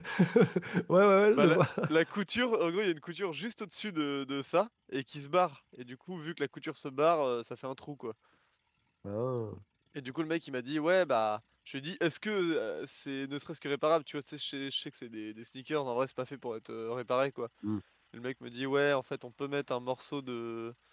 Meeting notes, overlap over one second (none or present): none